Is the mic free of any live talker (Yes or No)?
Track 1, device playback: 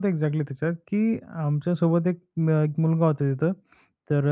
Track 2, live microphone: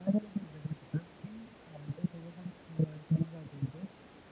Yes